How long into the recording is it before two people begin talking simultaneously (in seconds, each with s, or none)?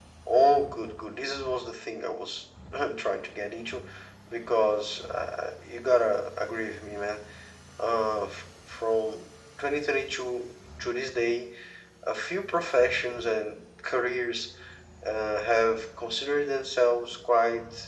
none